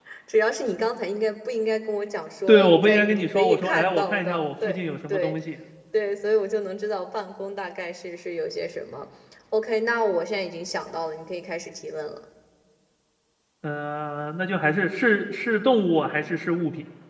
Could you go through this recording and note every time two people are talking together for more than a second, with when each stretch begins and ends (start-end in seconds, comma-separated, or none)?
2.5-5.3